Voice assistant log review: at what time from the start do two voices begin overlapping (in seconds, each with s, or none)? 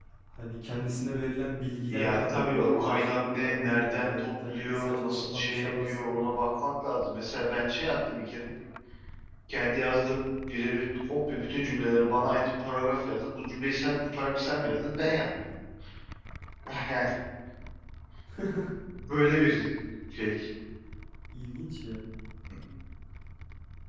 1.9 s